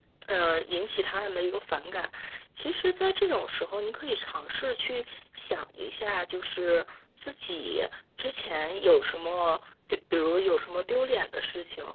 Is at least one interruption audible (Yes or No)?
No